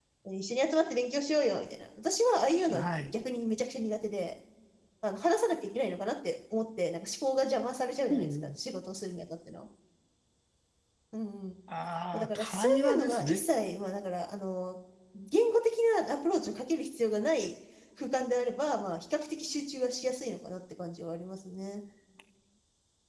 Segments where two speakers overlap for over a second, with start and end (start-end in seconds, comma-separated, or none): 12.1-13.4